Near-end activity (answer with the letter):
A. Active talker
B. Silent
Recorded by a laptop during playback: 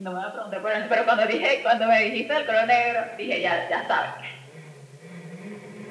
B